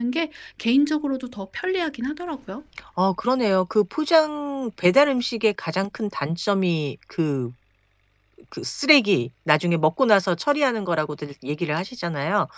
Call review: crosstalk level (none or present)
none